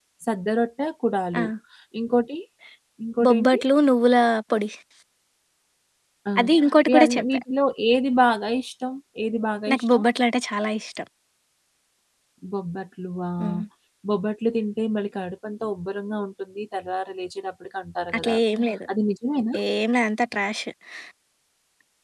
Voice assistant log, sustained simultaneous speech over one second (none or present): none